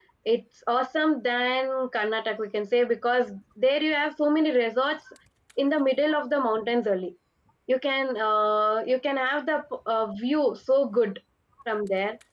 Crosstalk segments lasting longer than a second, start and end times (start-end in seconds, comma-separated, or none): none